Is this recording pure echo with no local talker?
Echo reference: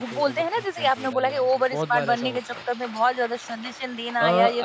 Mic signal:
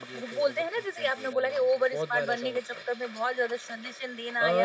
Yes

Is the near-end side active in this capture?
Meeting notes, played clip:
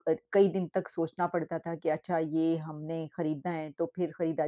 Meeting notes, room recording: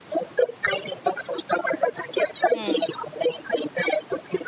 Yes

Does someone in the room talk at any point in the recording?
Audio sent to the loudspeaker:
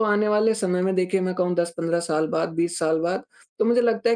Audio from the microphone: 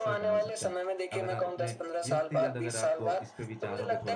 Yes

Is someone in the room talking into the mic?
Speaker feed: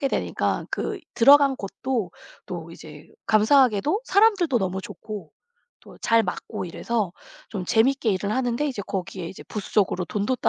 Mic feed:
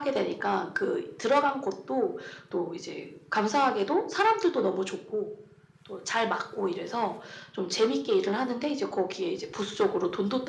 No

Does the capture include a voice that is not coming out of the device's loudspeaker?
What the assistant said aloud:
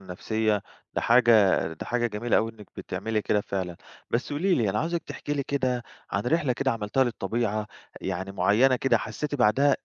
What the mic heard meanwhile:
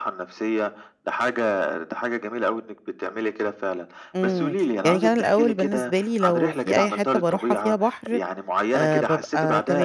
Yes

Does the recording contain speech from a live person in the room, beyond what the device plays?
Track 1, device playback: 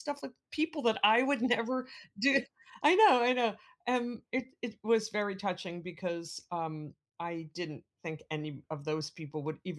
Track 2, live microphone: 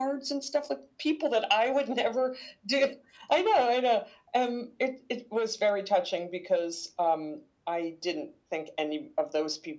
No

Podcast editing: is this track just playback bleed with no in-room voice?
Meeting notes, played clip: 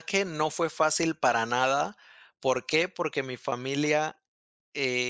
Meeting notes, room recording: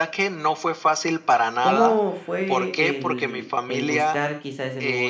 No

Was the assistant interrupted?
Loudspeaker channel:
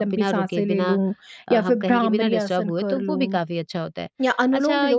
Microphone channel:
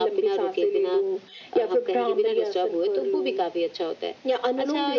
No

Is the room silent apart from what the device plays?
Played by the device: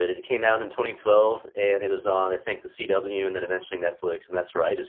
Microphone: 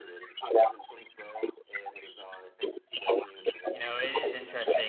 No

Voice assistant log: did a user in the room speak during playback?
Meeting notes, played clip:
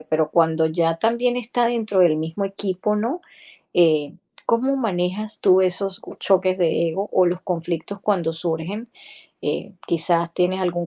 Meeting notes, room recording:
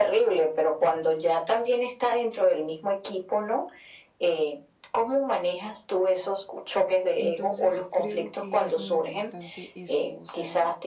Yes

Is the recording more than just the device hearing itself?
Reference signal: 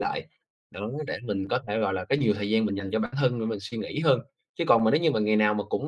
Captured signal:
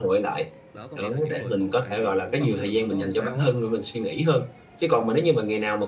Yes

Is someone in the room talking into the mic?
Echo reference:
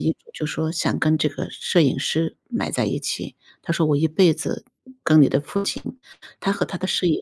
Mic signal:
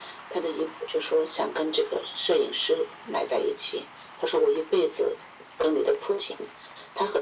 No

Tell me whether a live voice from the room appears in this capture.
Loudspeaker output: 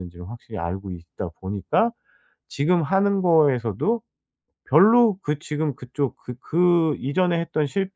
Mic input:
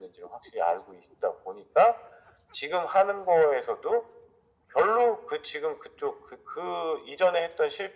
No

